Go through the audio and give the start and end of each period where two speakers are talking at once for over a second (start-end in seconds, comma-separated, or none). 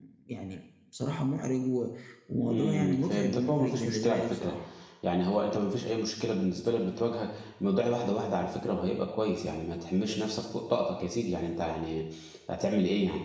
2.5-4.6